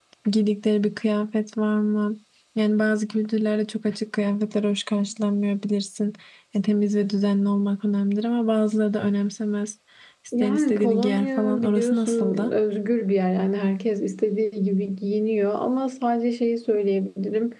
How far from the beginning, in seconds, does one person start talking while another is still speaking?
10 s

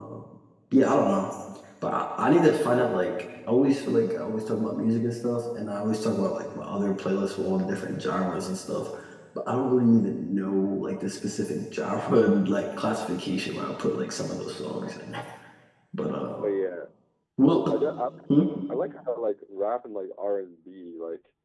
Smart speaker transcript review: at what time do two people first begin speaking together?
none

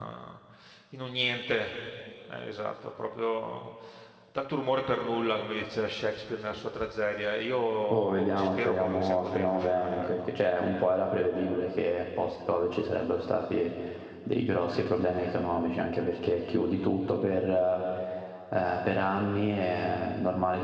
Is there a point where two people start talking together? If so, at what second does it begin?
8 s

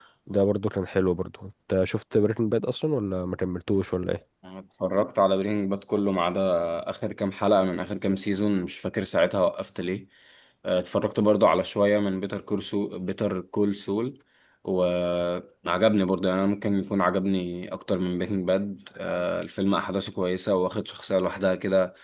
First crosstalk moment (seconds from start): none

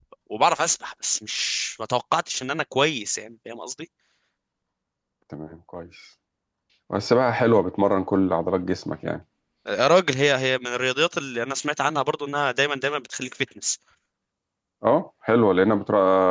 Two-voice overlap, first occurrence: none

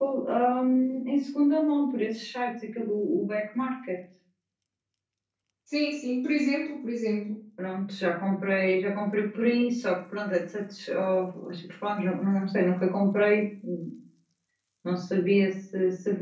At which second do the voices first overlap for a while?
none

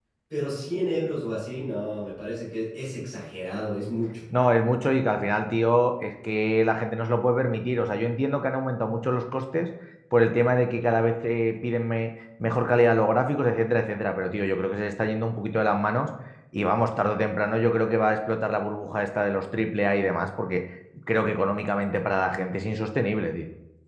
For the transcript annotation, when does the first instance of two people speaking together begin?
none

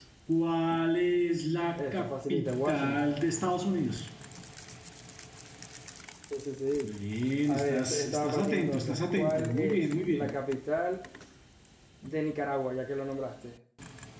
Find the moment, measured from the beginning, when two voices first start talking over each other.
2 s

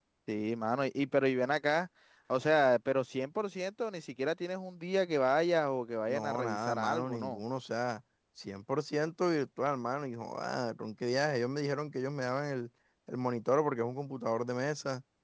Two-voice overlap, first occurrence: 6 s

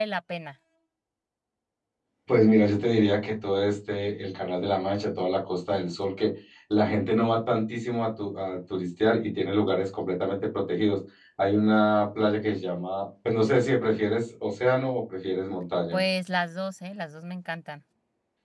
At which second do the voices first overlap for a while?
none

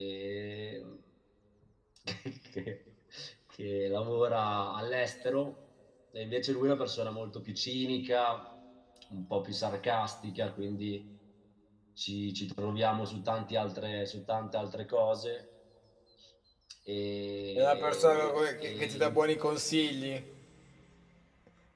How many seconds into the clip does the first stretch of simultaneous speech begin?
18 s

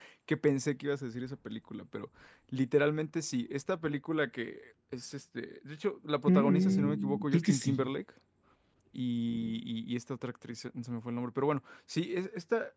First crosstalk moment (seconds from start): 6 s

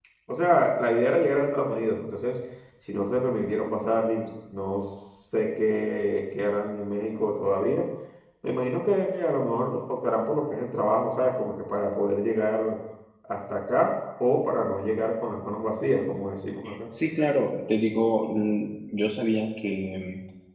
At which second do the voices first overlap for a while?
none

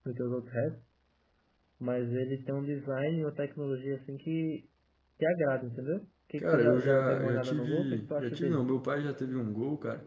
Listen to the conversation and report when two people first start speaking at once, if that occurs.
6 s

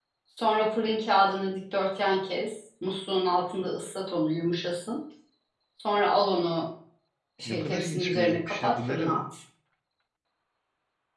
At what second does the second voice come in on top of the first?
7 s

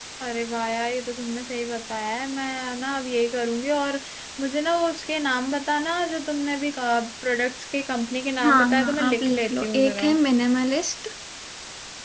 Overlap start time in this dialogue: 8 s

